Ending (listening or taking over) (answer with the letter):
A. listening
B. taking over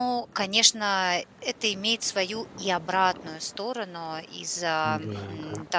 A